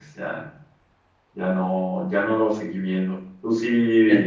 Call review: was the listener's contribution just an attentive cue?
Yes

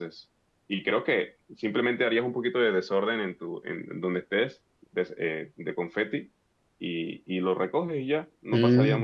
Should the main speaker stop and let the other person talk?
Yes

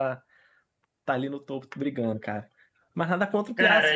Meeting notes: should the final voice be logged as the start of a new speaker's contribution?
Yes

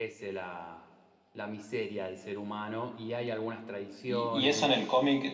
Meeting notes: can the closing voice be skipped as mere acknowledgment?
No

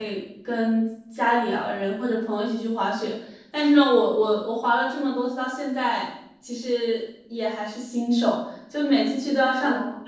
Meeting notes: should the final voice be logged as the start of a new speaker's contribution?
No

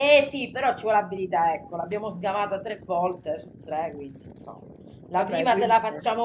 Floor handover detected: No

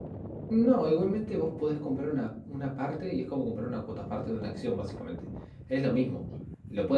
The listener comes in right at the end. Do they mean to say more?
No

